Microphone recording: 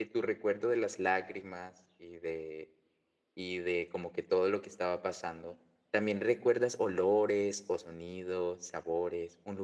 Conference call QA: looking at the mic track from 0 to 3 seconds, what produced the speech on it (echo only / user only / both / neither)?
user only